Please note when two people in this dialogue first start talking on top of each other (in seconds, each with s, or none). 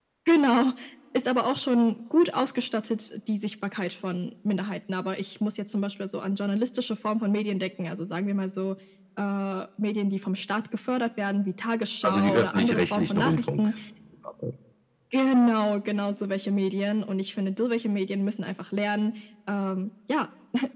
12.0 s